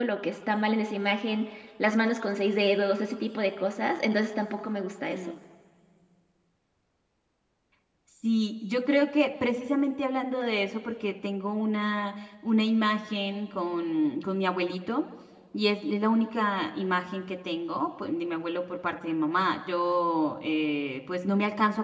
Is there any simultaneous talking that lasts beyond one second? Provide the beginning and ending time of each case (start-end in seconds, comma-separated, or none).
none